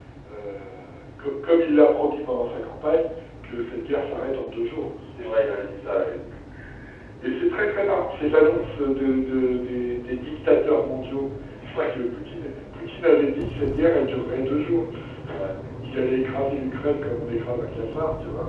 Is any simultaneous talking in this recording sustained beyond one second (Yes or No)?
No